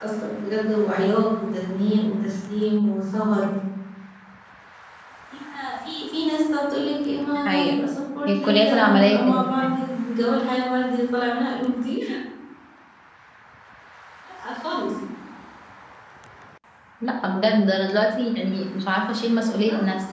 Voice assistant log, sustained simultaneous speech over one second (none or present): present